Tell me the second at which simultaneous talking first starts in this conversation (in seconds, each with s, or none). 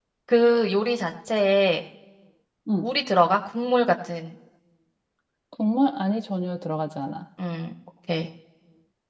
none